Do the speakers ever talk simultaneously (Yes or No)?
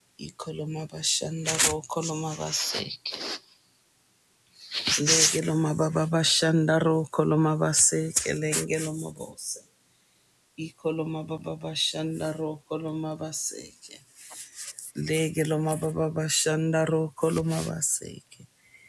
No